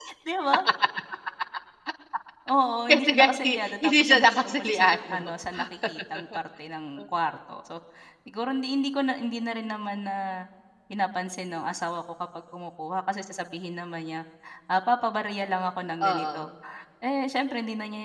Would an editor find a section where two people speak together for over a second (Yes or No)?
Yes